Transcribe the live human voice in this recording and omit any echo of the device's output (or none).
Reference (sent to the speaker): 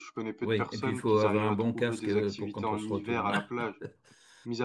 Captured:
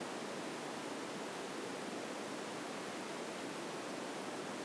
none